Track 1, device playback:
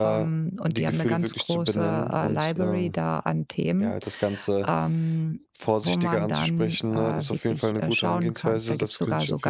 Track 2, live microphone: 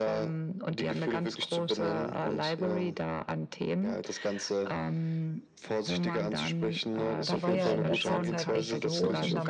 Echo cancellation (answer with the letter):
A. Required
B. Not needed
A